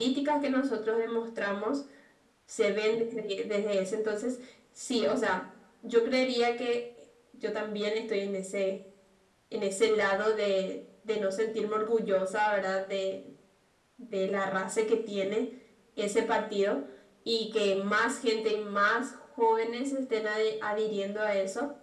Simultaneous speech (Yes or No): No